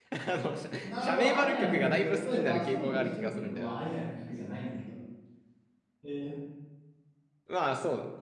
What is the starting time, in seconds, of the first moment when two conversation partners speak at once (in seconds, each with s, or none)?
0.8 s